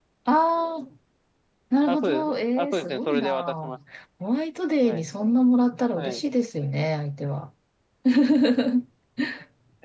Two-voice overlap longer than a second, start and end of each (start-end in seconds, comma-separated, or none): 1.9-3.8